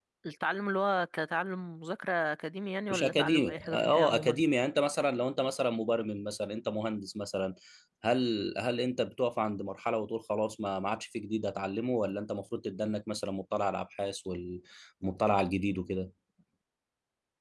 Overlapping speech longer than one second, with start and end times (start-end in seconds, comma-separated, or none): 2.9-4.4